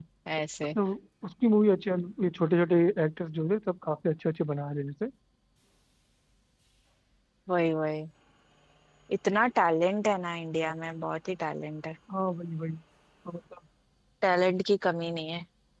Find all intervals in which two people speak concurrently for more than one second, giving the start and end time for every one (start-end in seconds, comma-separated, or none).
none